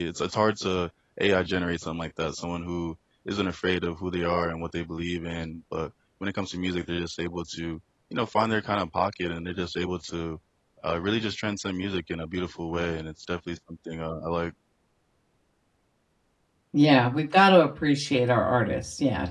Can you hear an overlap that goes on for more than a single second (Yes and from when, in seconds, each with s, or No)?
No